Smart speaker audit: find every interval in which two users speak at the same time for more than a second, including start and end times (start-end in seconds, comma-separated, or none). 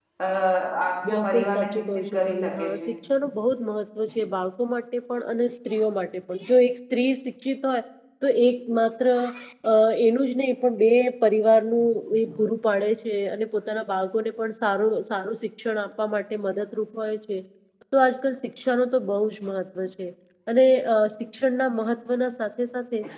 1.1-2.7